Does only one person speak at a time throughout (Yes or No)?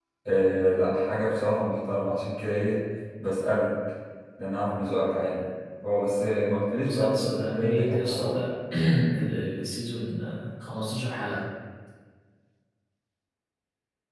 No